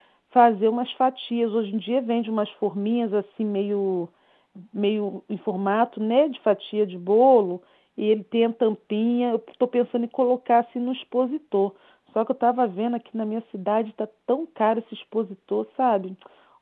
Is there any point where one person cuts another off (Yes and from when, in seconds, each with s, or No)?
No